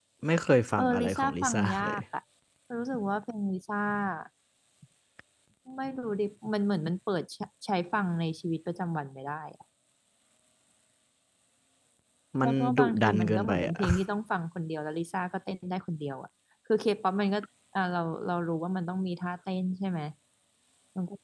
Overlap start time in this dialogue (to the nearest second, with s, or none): 1 s